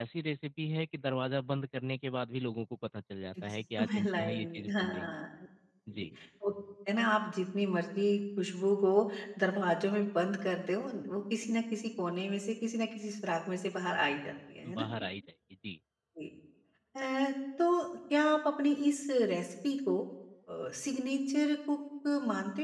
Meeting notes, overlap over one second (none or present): present